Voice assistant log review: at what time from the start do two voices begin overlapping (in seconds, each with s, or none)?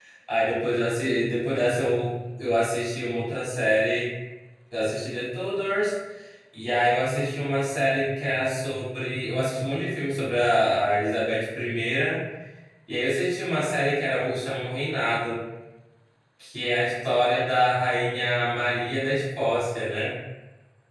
none